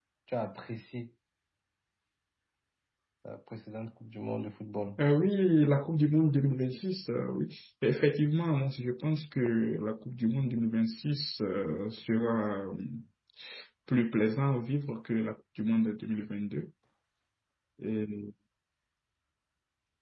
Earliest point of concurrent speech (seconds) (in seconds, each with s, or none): none